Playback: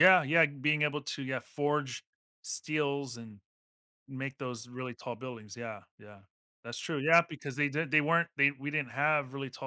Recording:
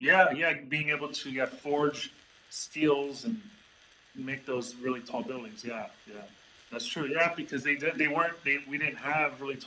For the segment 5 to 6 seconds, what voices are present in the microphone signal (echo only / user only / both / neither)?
echo only